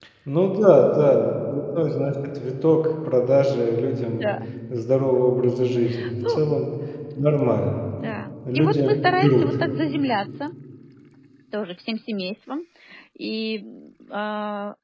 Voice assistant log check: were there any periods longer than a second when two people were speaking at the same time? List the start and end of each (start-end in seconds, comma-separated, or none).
none